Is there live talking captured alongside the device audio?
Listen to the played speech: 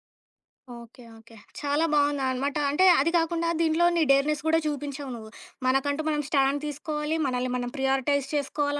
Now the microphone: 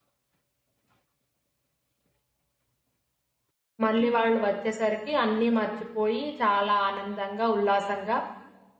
Yes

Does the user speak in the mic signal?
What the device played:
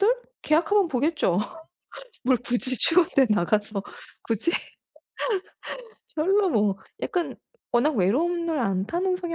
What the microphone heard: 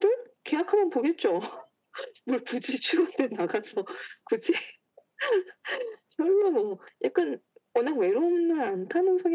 No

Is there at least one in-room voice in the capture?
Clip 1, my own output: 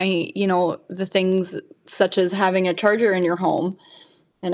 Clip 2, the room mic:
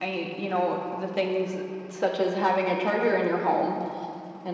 No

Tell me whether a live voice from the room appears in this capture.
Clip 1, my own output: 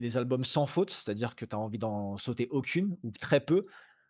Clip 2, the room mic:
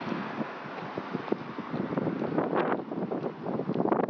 No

